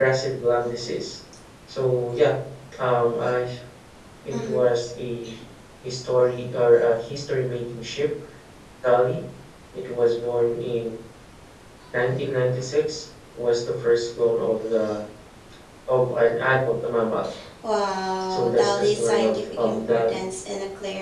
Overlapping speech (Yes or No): Yes